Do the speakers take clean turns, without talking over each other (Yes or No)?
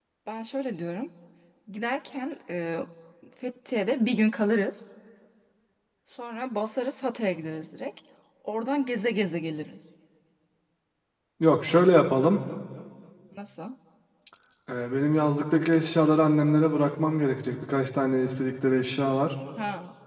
Yes